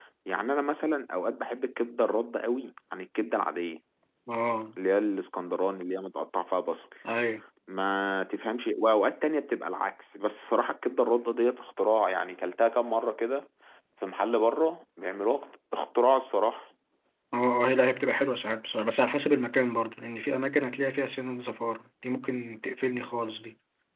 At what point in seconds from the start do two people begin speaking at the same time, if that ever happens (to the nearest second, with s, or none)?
none